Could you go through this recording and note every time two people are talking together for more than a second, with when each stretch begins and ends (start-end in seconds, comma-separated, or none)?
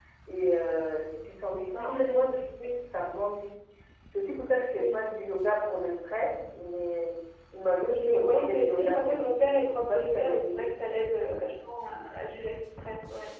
7.8-10.7